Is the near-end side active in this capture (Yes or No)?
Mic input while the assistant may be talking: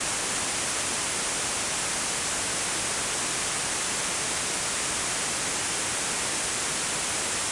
No